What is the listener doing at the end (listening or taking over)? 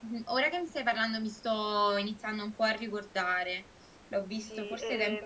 taking over